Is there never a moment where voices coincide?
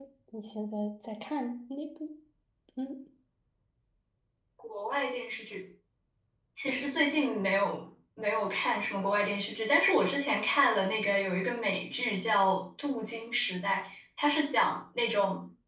Yes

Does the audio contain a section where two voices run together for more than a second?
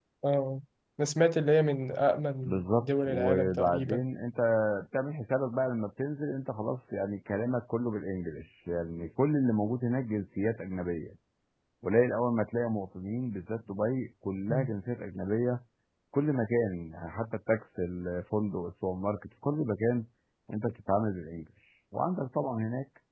Yes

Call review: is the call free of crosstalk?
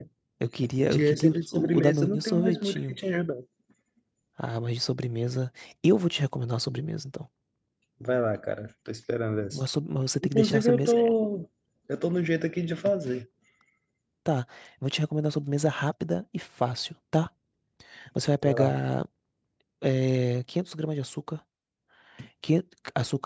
No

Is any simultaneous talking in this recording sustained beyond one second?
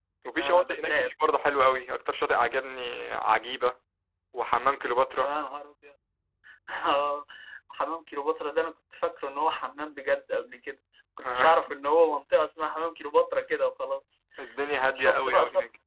Yes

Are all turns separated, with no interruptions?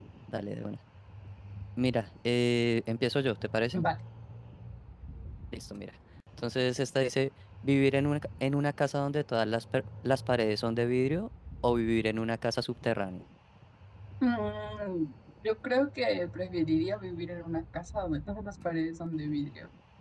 Yes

